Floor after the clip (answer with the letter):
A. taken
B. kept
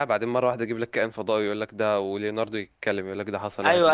A